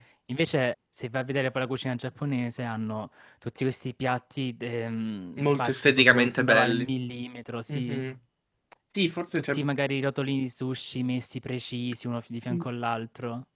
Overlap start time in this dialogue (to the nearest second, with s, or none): 5 s